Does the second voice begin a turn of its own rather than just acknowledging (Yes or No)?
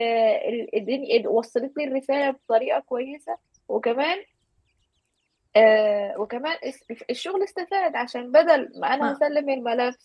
No